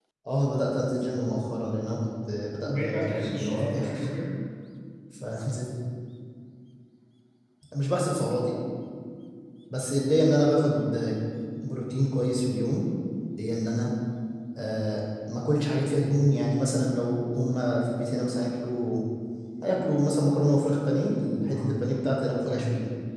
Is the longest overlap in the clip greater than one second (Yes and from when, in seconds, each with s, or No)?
Yes, from 2.6 s